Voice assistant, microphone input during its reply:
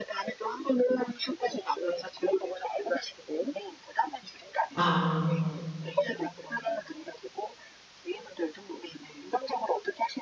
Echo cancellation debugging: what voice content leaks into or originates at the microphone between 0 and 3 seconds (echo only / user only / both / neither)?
echo only